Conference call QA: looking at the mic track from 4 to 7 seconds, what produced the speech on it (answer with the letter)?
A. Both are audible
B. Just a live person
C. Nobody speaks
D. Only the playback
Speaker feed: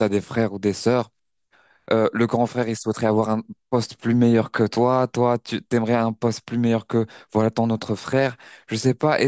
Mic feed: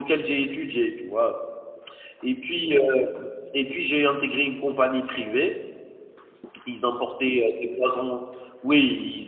B